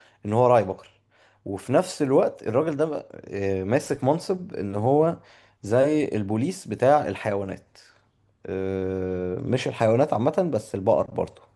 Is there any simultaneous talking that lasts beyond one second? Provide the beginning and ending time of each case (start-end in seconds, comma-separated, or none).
none